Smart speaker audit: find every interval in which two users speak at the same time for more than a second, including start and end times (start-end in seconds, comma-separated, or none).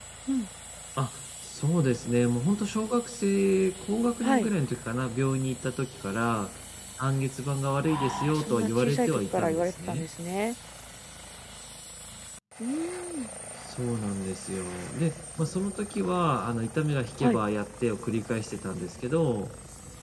7.8-10.0